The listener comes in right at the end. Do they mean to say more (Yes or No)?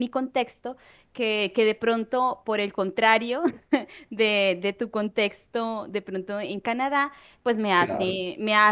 No